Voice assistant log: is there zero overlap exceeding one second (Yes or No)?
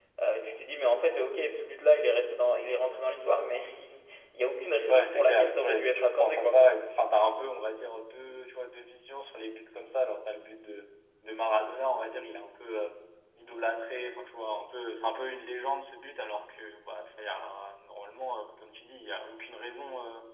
No